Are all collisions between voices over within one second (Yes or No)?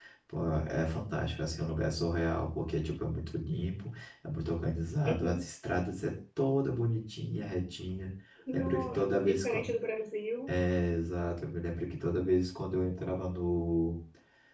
No